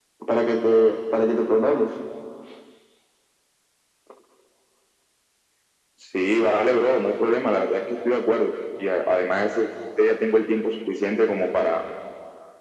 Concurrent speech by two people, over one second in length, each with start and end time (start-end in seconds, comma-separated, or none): none